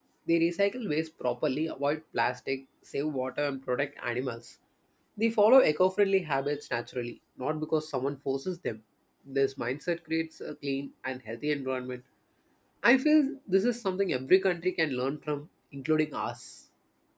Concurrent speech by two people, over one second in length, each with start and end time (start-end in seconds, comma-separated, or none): none